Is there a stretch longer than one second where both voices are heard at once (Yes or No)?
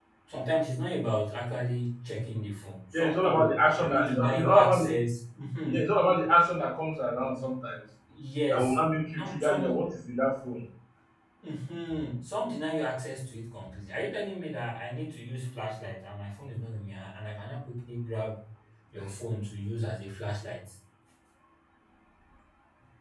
Yes